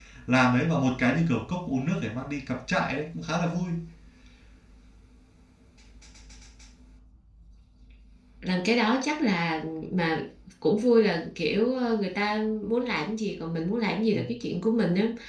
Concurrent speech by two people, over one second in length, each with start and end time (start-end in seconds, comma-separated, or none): none